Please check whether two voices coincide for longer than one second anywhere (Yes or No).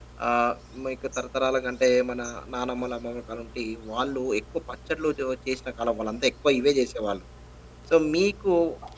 No